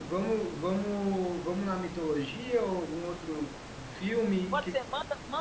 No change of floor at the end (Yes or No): No